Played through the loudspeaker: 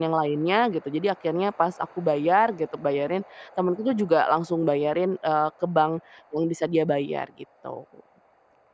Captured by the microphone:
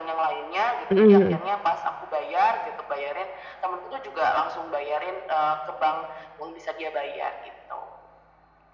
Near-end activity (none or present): present